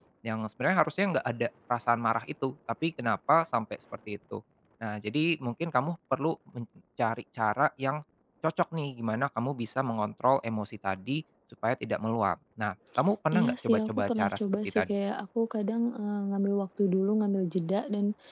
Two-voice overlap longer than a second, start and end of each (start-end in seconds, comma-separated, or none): 13.3-14.8